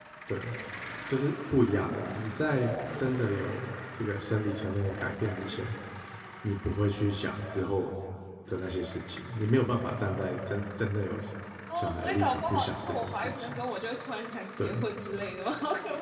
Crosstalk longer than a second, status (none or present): present